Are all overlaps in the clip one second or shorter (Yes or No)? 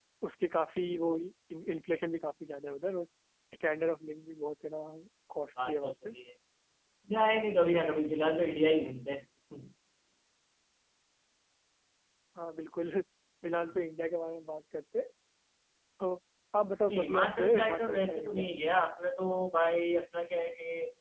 No